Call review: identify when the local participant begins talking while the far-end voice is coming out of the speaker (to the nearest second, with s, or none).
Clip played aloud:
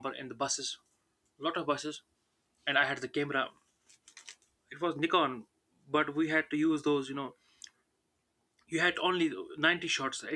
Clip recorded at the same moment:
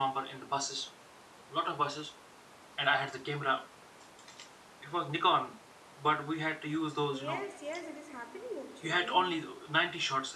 7 s